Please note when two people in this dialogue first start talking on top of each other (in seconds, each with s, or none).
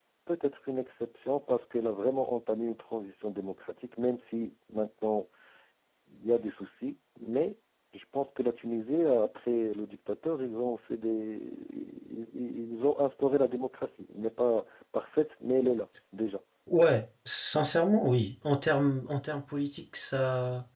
none